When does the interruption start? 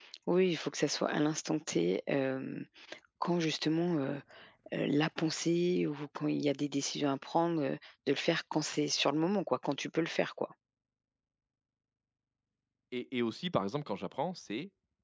none

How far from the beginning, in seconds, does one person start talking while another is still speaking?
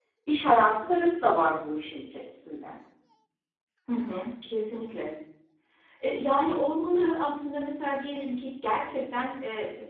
none

